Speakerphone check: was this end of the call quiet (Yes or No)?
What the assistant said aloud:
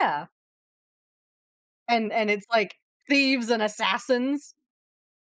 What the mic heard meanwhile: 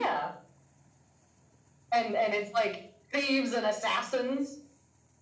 Yes